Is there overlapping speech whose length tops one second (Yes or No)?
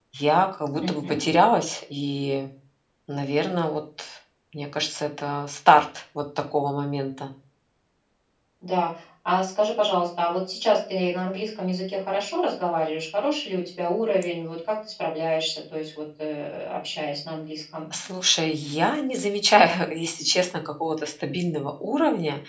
No